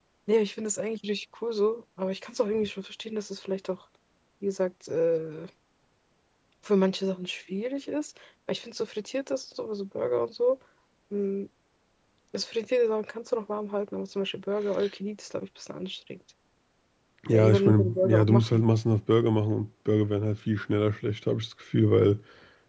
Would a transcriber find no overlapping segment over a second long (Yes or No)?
No